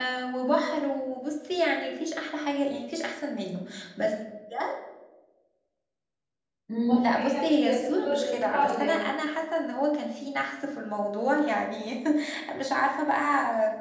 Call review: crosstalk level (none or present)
present